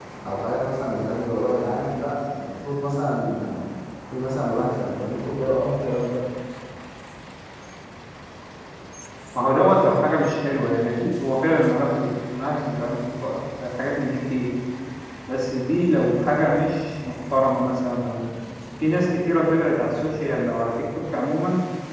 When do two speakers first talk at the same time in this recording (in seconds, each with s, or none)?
none